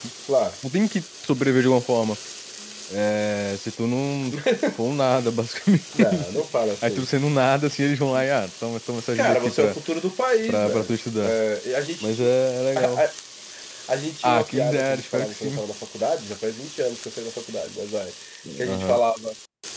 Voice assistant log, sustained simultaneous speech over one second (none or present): present